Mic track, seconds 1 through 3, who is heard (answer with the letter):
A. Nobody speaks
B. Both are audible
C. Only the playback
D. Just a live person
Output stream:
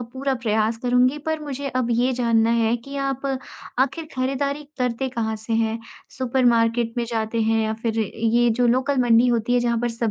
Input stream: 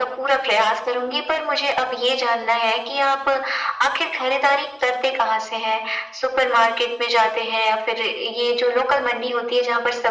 C